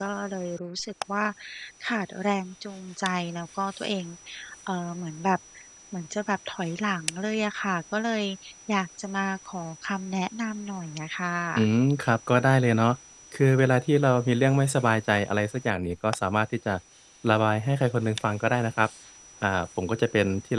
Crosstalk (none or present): none